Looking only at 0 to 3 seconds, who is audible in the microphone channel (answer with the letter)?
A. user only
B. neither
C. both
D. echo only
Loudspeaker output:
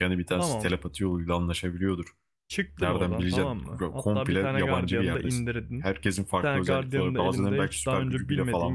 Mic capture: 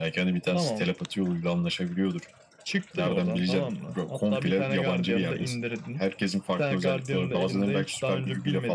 D